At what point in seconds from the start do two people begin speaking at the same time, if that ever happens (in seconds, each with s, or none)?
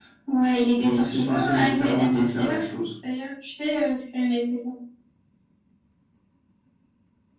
0.8 s